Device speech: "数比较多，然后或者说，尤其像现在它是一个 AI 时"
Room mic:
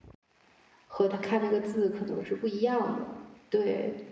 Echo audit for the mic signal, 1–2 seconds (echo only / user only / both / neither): user only